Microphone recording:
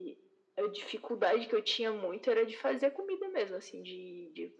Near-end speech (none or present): none